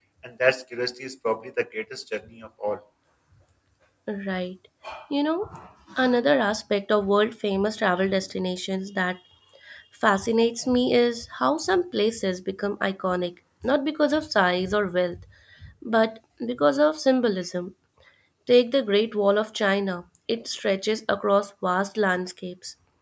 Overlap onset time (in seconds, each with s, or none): none